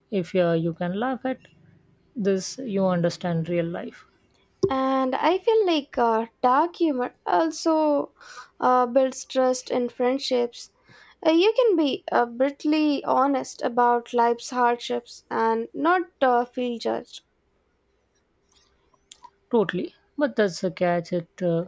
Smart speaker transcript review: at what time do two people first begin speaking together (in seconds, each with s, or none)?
none